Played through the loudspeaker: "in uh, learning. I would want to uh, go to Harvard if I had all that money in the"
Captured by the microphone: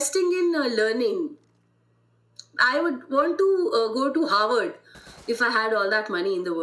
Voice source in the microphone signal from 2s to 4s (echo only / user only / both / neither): echo only